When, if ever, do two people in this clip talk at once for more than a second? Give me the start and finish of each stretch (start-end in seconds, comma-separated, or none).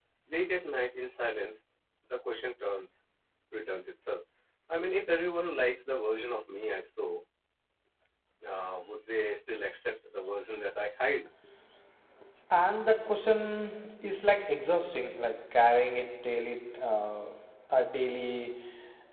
none